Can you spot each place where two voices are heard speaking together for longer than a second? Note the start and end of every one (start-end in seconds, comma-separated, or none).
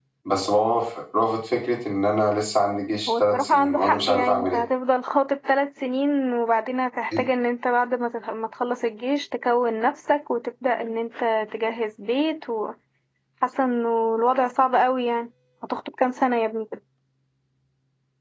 3.1-4.6